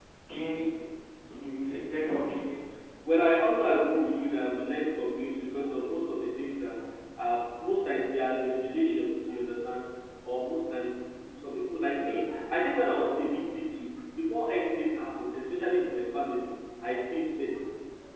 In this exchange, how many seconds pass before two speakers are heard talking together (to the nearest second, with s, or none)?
none